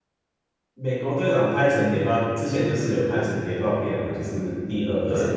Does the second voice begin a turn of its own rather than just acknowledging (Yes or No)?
Yes